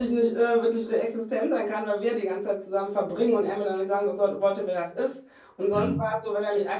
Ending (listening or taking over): listening